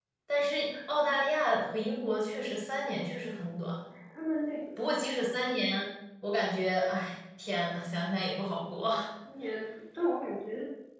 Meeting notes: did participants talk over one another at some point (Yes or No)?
No